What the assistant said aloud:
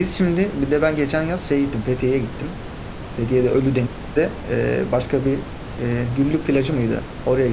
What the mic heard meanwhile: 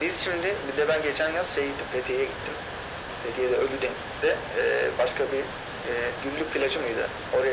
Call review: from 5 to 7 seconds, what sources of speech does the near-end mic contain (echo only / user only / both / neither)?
echo only